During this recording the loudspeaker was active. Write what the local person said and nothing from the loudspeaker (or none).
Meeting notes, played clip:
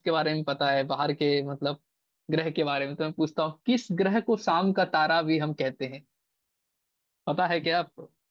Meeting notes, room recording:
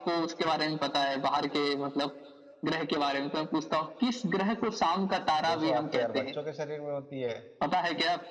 दो सौ आठ तो यार बच्चों के शरीर में होती है